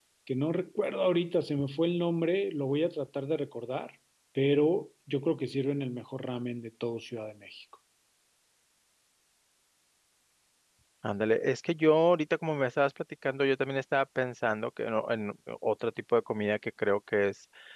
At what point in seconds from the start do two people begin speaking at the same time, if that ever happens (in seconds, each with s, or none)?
none